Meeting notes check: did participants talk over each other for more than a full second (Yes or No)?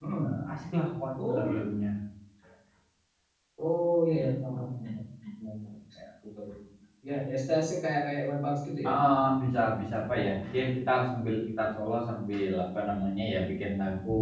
No